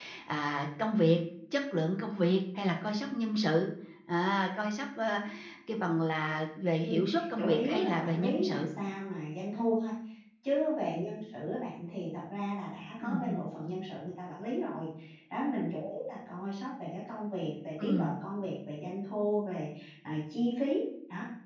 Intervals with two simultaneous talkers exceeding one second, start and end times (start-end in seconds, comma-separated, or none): 6.8-8.7